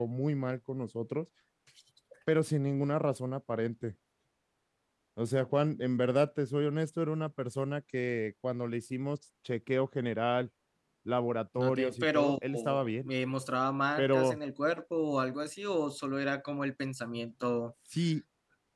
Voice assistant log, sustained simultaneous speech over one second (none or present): present